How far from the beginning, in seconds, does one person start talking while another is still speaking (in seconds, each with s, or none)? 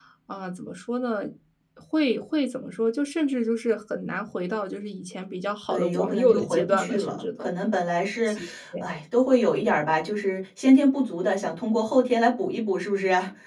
5.7 s